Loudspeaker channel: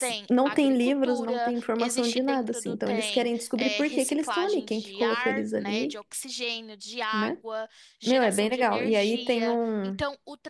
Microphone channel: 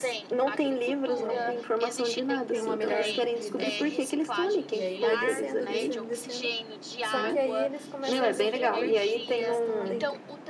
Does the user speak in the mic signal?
Yes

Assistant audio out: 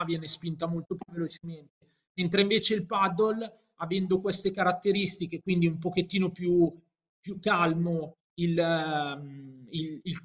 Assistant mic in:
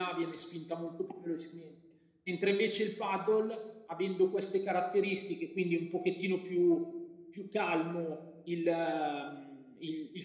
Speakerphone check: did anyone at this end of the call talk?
No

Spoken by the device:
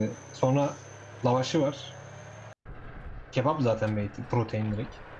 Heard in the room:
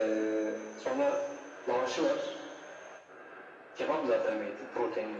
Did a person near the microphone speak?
No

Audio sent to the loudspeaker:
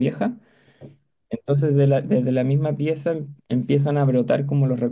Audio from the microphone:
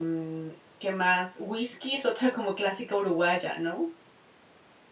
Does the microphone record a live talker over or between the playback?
Yes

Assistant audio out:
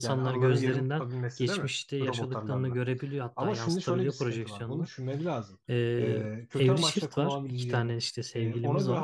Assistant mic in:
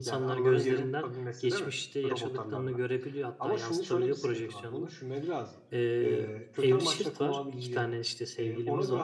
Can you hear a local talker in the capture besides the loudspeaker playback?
No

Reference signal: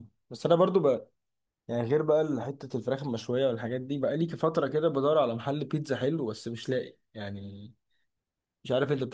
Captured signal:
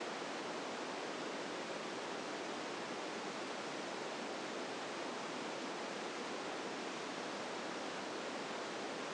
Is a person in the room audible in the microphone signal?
No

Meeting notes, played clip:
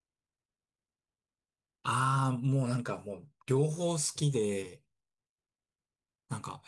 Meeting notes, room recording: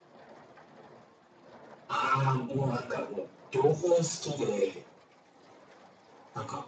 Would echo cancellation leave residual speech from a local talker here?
No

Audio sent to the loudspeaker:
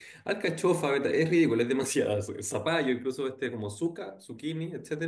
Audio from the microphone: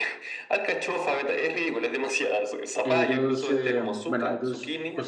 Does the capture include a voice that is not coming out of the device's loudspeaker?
Yes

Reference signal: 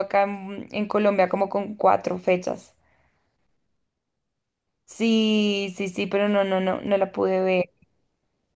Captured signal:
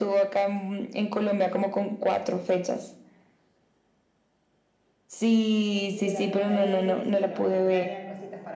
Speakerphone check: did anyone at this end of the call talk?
Yes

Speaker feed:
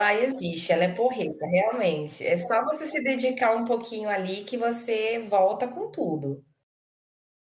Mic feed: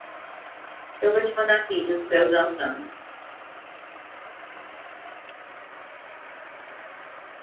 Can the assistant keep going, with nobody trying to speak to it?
No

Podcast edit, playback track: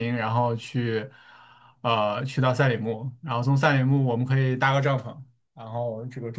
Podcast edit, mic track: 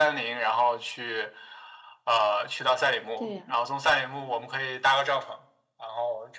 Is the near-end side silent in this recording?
No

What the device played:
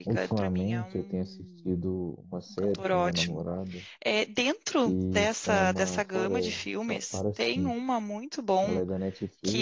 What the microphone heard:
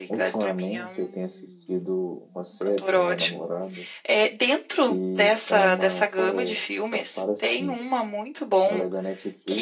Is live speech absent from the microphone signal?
Yes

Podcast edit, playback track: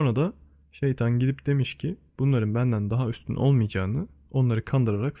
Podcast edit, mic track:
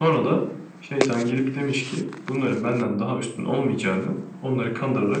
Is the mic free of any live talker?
Yes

